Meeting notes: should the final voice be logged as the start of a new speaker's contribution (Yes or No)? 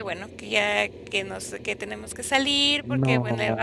No